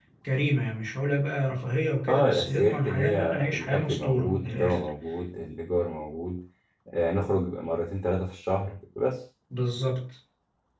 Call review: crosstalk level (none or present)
present